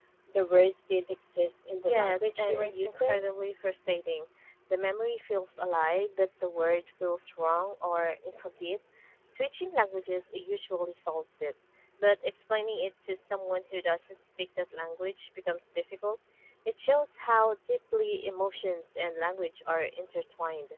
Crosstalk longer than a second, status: present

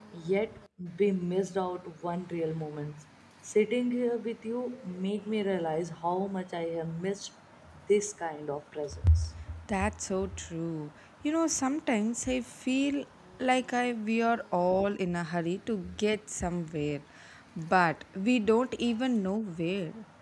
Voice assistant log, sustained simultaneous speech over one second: none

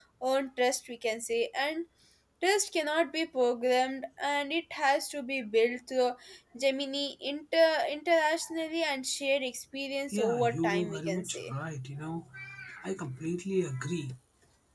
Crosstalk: present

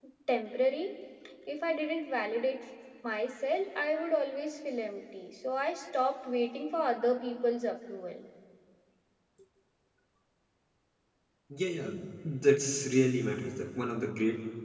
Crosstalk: none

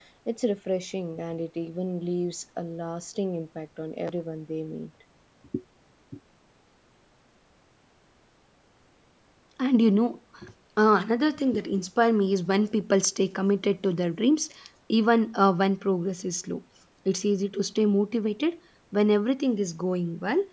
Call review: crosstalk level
none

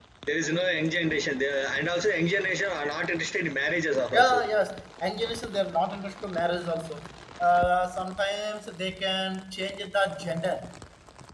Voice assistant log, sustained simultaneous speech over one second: none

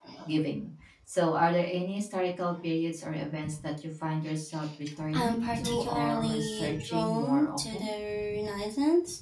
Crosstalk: present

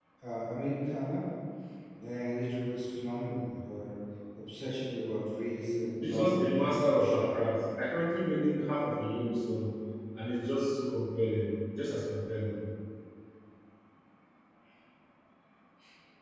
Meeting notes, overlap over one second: present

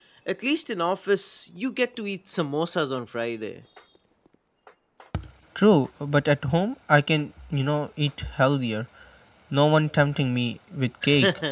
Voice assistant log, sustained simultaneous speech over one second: none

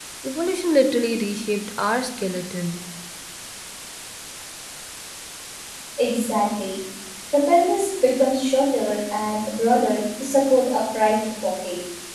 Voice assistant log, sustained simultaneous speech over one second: none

